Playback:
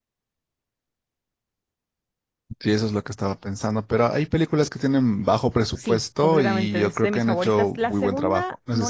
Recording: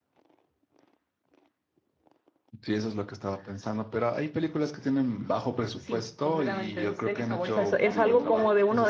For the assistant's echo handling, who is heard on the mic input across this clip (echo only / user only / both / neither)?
both